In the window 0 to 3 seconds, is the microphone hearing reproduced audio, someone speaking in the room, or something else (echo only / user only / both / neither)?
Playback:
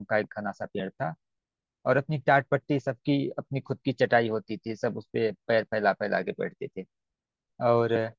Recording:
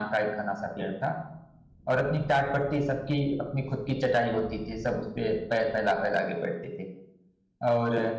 echo only